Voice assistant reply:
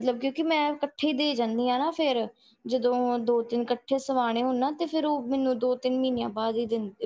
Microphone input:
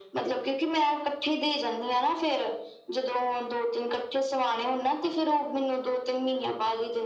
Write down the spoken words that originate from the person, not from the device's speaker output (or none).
none